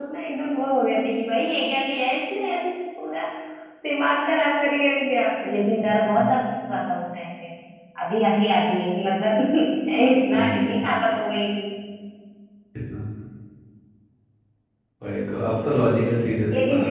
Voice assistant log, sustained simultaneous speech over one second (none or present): none